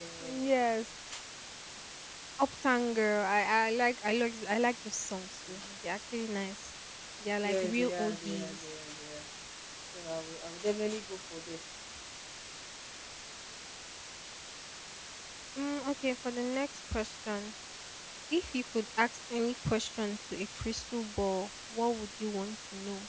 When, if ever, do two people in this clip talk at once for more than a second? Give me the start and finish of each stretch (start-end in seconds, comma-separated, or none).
7.4-8.6